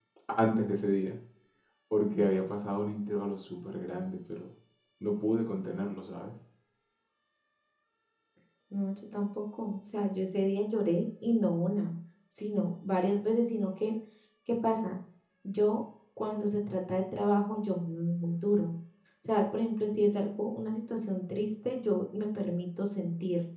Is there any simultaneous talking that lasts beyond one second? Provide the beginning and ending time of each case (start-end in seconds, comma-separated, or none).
none